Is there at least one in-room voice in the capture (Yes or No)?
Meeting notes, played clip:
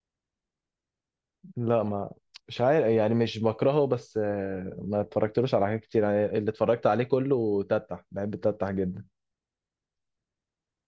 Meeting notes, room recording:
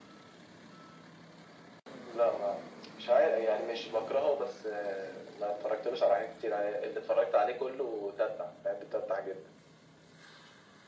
No